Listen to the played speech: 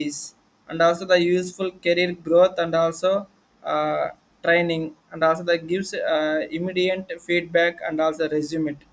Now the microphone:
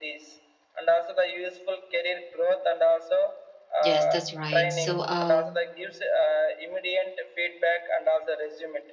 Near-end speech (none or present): present